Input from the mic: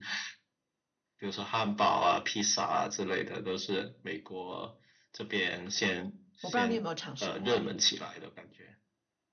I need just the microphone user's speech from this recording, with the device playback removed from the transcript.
我不知道你有没有尝试过哎。

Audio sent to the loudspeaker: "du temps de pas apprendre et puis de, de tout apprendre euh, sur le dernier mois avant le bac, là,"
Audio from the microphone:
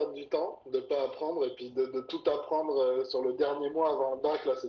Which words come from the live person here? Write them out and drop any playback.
none

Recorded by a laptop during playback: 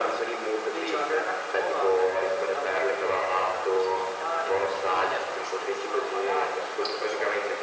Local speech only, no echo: none

